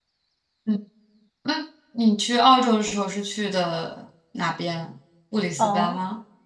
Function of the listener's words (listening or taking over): taking over